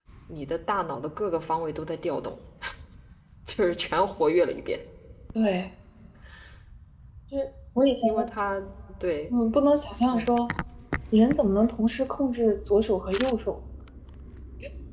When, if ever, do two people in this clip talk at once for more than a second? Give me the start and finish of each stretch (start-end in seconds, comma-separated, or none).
none